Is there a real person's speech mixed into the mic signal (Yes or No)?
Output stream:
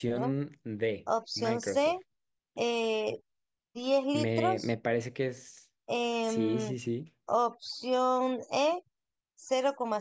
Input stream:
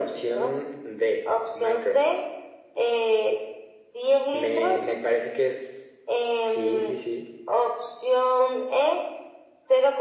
No